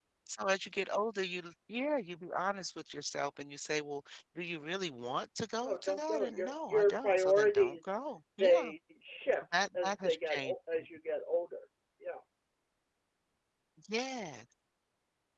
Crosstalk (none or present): present